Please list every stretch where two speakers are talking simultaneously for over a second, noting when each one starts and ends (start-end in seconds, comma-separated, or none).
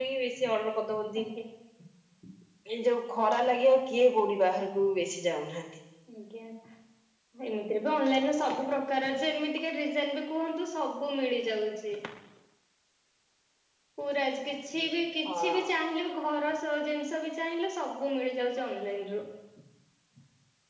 none